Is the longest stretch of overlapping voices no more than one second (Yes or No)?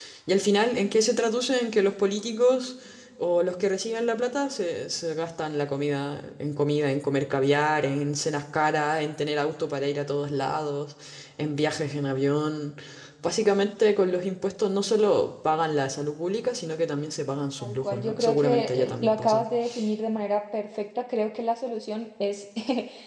No